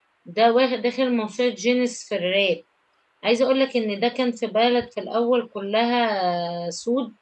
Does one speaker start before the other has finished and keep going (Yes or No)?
No